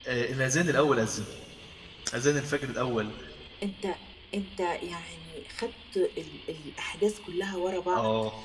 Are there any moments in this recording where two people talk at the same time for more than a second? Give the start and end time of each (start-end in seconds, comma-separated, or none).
none